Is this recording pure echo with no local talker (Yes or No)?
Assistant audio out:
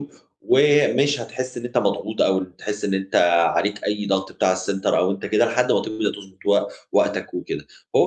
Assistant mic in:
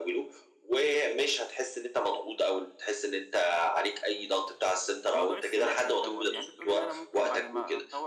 No